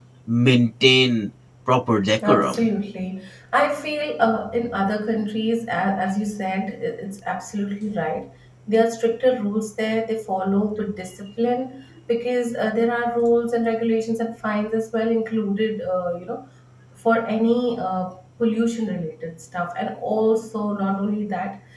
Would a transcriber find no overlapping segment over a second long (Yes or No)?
Yes